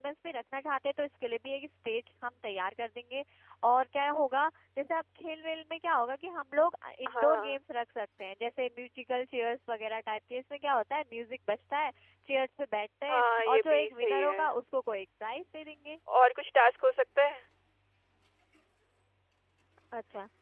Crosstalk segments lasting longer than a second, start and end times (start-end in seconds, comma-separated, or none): 13.1-14.4